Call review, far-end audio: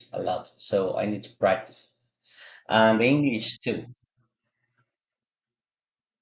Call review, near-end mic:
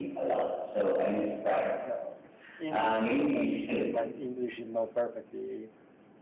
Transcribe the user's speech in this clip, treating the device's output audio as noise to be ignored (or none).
No, English and Spanish, and my English is not perfectly.